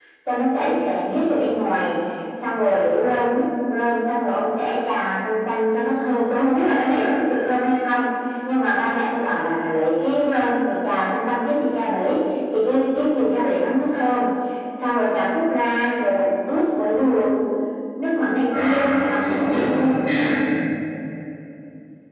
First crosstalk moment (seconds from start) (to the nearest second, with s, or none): 19 s